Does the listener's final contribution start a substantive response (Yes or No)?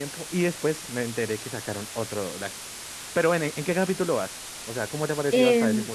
Yes